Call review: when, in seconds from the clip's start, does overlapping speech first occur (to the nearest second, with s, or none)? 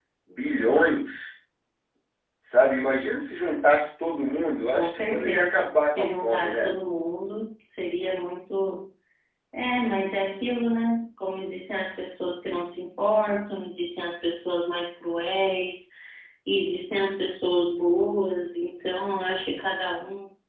5 s